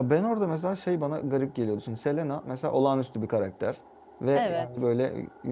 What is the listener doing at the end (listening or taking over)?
listening